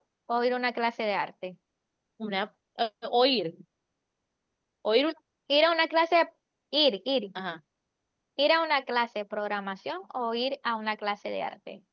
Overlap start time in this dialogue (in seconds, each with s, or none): none